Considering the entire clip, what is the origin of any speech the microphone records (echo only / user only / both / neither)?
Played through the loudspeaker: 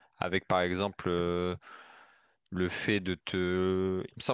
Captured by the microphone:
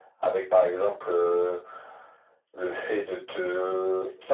echo only